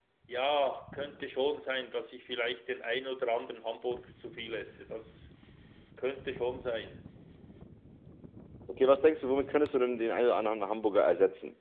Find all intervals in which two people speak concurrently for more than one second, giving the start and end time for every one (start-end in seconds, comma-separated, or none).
none